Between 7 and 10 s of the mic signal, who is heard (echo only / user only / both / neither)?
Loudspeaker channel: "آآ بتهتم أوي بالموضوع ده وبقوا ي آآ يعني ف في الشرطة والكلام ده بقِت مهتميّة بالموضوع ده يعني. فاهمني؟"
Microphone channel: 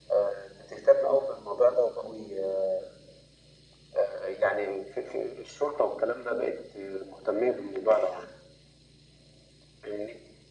echo only